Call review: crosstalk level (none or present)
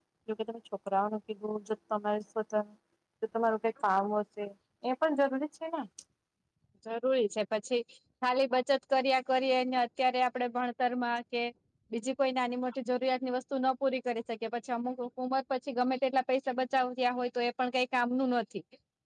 none